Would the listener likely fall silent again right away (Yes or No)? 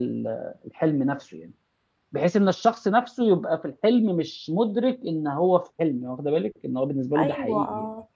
No